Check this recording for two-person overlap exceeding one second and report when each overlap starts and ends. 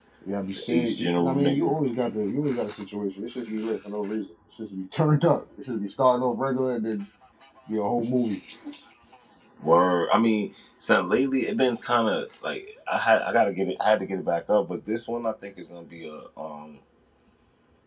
0.6-1.8

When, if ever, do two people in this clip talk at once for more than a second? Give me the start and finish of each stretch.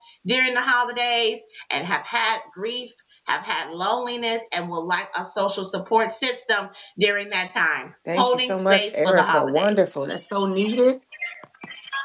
8.2-9.8

